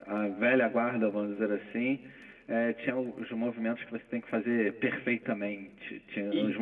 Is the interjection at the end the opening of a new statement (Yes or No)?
No